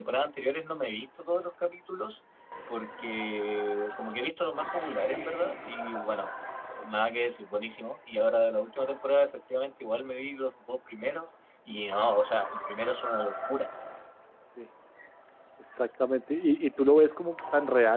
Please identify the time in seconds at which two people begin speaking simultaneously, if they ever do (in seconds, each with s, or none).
none